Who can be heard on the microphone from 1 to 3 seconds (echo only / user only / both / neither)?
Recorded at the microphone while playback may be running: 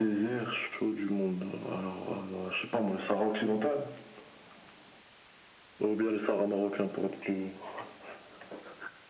echo only